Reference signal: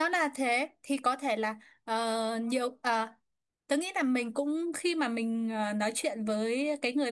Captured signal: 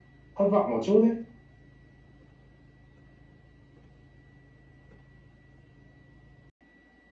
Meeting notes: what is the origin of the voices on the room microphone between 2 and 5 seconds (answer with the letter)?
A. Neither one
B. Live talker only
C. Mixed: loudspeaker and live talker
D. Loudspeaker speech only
A